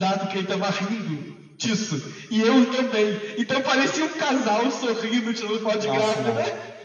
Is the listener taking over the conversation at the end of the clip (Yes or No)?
Yes